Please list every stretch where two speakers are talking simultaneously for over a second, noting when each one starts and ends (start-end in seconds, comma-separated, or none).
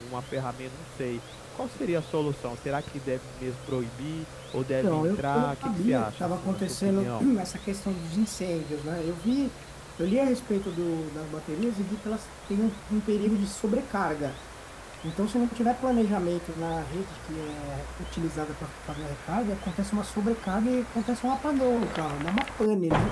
4.8-7.3